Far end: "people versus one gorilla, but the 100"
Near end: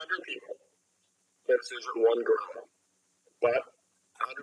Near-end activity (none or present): none